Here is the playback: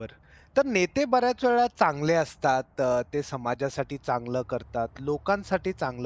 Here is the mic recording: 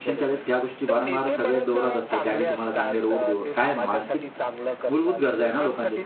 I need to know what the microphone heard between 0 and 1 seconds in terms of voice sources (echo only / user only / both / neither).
both